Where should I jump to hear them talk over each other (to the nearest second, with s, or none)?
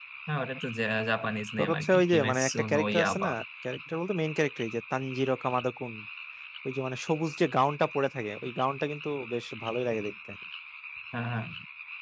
2 s